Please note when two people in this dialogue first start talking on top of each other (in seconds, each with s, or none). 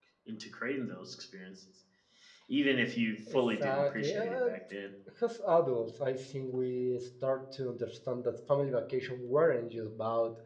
3.3 s